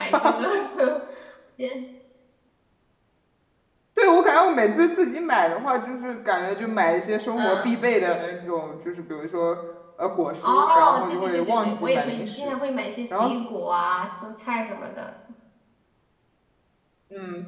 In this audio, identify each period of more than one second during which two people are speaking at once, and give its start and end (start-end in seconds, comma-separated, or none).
10.5-12.6